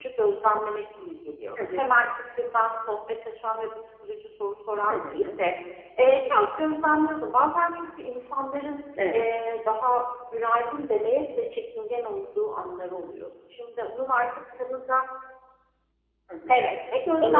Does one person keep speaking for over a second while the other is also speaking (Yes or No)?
No